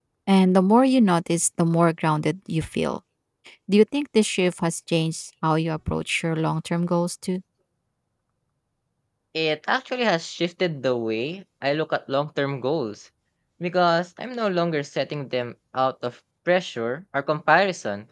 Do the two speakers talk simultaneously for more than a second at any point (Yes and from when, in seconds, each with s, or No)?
No